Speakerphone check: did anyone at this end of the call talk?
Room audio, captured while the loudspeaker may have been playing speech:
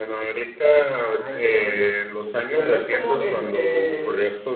Yes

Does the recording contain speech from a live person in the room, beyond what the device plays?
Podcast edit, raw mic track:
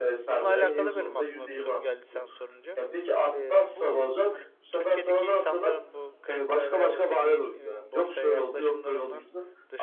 Yes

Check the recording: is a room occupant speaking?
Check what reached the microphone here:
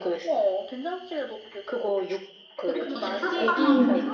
Yes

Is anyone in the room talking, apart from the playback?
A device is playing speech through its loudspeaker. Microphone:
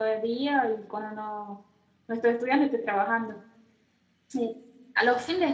Yes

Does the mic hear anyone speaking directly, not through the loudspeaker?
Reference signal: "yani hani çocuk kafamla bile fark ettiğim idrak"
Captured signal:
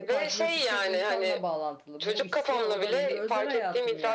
Yes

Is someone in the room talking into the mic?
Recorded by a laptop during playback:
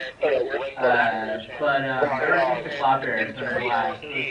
Yes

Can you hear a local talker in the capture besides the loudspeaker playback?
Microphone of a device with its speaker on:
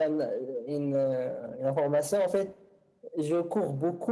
No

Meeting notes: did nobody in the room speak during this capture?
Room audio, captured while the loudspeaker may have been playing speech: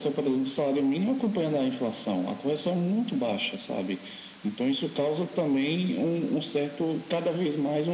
Yes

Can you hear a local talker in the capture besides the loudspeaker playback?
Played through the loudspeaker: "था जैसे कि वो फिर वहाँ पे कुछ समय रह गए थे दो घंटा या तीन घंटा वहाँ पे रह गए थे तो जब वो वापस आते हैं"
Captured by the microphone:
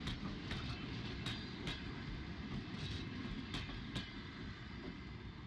No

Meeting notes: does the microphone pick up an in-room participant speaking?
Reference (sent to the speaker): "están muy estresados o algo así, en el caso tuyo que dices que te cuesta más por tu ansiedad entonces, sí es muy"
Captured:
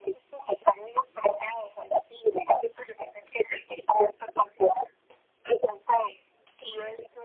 No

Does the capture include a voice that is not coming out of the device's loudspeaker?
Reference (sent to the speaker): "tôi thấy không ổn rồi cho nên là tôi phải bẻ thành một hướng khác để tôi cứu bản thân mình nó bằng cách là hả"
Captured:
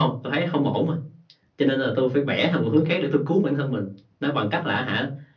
No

